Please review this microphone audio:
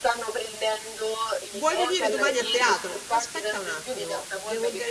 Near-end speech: present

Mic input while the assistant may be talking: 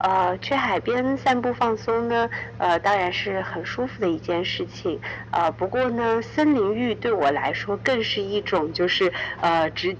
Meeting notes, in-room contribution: none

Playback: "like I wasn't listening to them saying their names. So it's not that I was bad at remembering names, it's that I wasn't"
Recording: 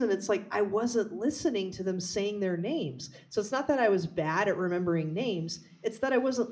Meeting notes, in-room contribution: none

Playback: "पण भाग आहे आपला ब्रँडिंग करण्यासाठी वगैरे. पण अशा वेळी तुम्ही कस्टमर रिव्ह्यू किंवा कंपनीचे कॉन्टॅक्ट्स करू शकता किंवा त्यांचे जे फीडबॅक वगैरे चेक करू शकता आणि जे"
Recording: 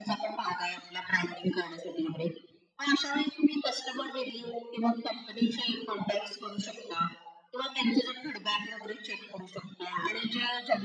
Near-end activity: none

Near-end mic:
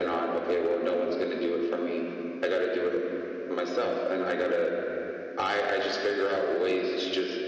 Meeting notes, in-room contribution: none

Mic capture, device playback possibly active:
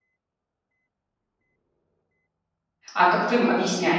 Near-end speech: present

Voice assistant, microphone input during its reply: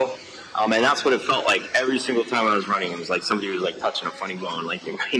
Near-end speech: none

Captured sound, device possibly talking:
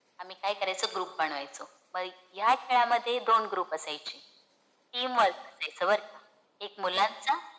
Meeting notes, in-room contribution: none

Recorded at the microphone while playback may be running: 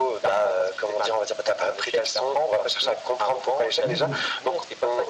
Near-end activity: present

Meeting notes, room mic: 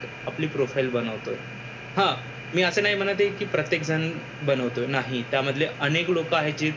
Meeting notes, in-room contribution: none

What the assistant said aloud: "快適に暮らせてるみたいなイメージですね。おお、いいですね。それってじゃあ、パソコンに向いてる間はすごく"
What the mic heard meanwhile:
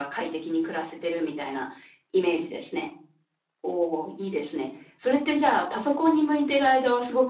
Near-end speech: none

